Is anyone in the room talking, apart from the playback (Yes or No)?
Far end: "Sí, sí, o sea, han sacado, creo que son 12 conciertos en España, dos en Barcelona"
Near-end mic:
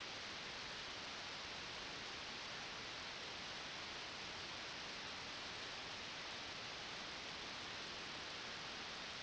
No